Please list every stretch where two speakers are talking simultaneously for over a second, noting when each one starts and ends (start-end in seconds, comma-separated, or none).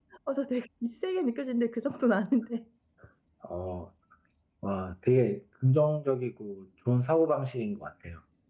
none